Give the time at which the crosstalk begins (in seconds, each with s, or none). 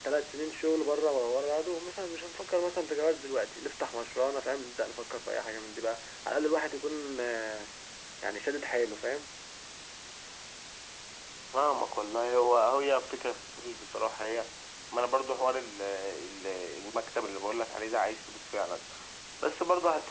none